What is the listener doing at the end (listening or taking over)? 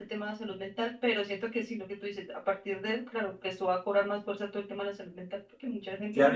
taking over